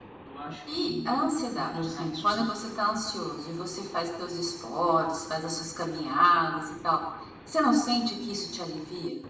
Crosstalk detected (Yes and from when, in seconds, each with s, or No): Yes, from 0.8 s